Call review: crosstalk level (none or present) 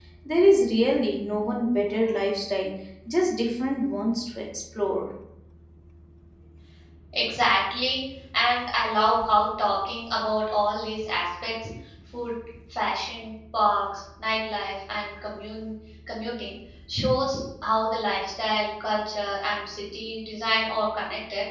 none